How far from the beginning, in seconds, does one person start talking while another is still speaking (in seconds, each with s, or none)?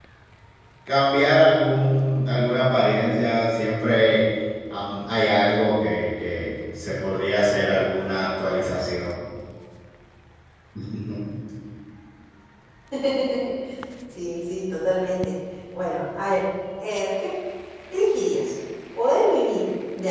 none